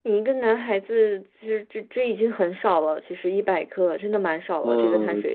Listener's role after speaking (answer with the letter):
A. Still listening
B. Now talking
B